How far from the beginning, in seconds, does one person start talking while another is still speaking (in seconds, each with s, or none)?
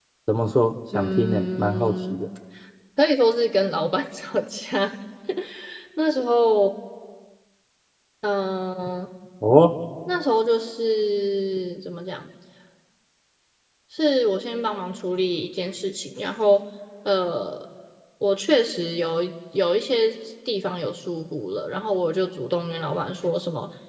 0.9 s